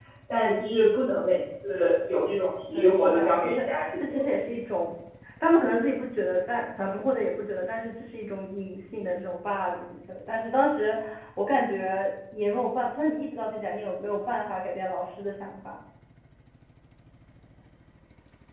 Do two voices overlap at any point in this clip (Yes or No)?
Yes